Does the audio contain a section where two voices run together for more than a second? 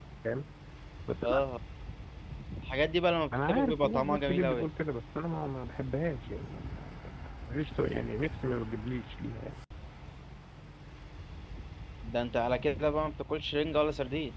Yes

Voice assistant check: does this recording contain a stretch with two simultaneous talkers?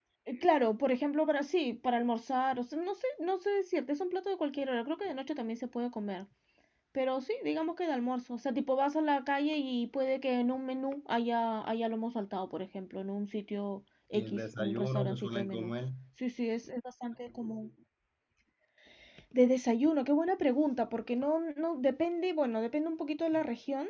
Yes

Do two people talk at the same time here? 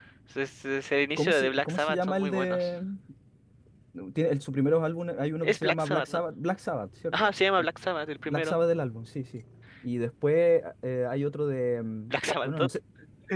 Yes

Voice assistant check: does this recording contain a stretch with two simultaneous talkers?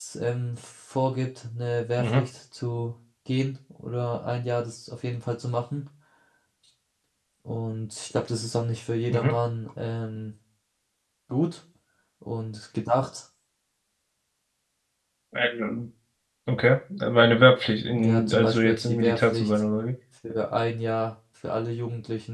Yes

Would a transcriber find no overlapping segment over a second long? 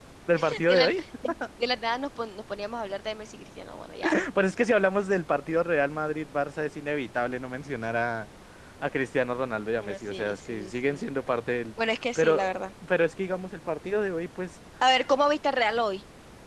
No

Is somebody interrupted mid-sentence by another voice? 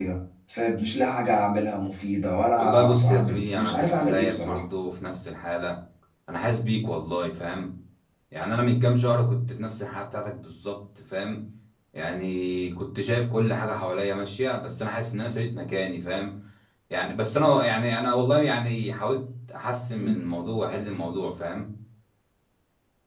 Yes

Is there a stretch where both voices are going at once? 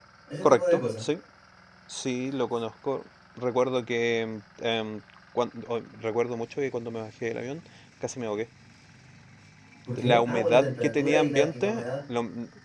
Yes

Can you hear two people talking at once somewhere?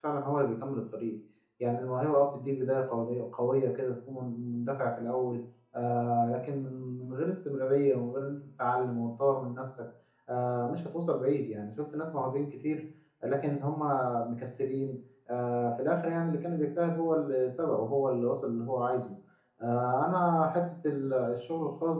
No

